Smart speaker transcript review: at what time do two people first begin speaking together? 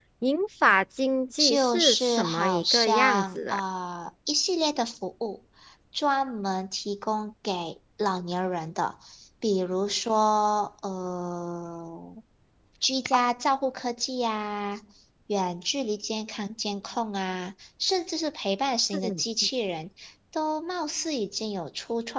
1 s

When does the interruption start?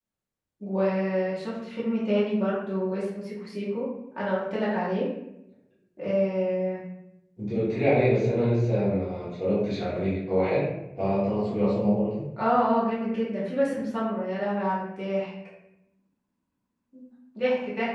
none

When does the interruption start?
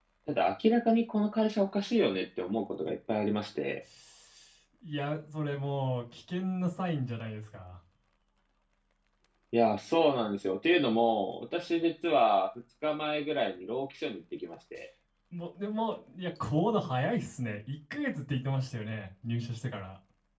none

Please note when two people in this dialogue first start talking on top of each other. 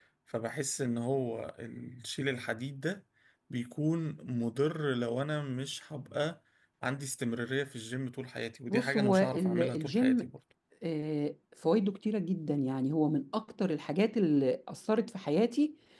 9 s

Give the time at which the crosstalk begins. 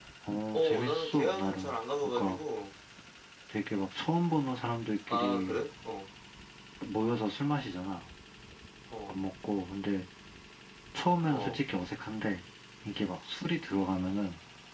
1 s

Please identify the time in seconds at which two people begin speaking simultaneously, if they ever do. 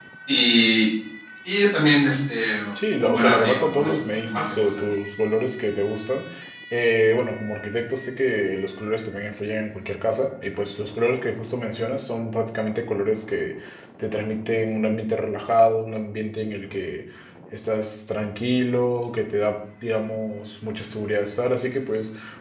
3 s

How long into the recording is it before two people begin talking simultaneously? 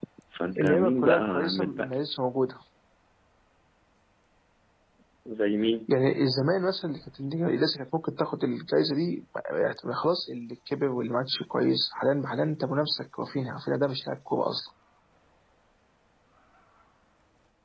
1 s

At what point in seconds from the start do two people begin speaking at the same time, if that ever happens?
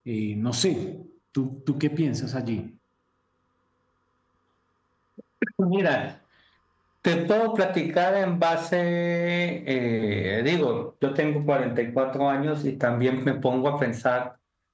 none

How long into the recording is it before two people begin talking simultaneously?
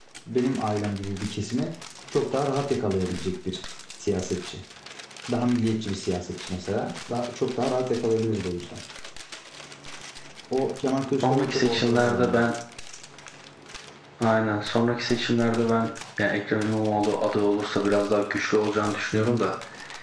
11 s

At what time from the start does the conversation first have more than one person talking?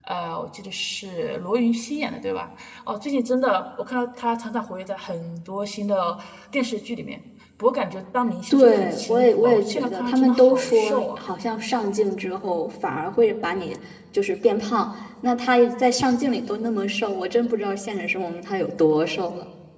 9 s

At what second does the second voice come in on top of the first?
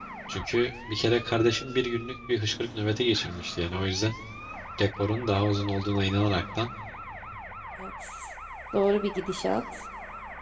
none

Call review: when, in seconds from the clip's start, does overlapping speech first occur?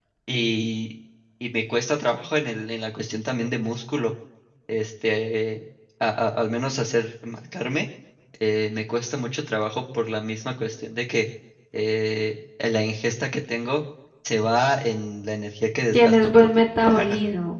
16 s

